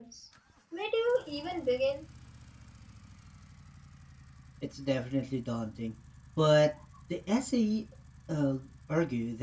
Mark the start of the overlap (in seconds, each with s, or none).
none